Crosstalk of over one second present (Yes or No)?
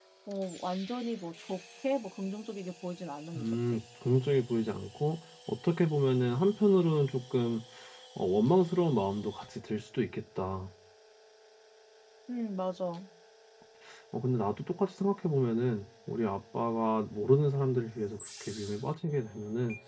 No